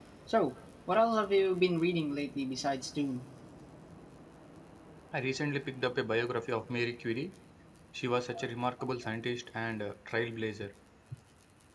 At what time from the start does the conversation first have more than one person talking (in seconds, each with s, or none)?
none